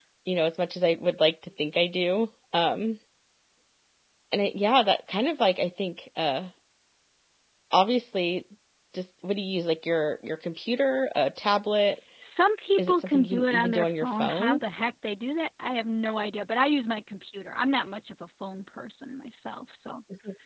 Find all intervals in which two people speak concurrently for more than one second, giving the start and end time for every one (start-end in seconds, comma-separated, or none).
12.8-14.6